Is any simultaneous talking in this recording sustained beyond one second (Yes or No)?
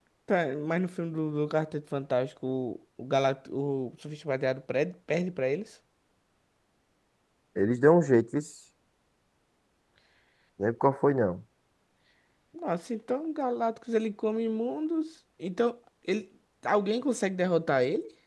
No